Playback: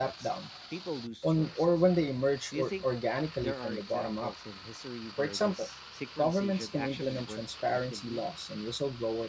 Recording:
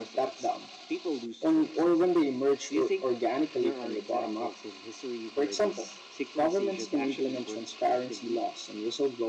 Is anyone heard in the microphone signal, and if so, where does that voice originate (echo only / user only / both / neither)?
echo only